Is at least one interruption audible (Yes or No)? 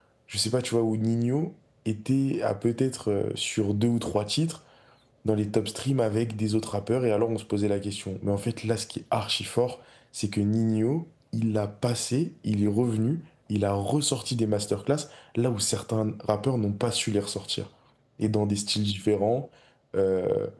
No